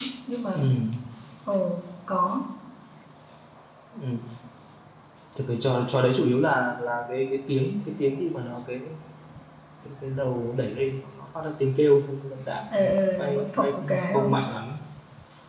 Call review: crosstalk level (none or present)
present